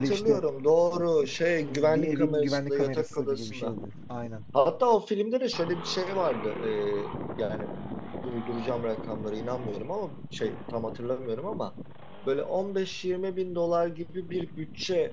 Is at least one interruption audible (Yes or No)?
Yes